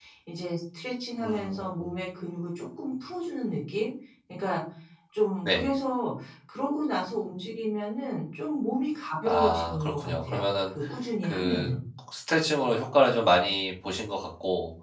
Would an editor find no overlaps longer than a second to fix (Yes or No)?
No